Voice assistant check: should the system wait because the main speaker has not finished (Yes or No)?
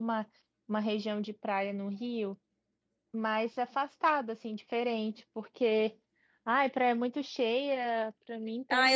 No